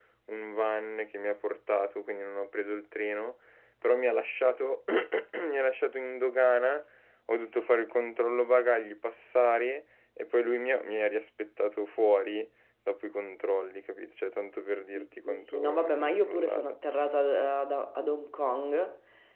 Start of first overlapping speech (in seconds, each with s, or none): 15.0 s